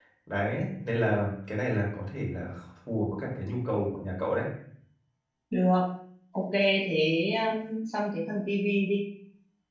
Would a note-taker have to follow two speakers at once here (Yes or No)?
No